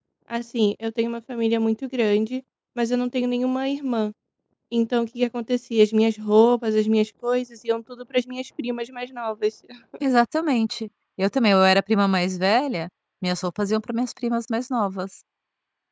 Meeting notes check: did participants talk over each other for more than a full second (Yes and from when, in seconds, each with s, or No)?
No